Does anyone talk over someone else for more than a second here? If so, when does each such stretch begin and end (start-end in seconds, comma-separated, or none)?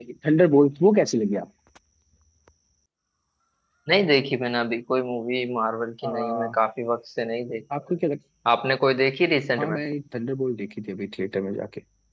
none